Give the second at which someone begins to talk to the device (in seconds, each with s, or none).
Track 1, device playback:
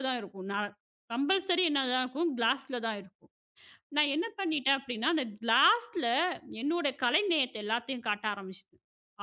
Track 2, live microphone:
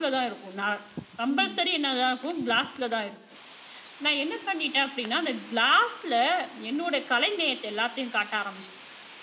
1.3 s